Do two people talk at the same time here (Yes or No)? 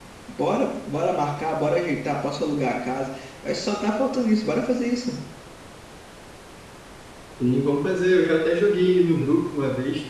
No